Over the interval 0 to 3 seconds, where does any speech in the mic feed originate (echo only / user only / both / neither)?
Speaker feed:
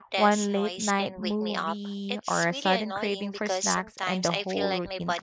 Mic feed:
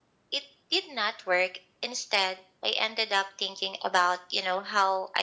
user only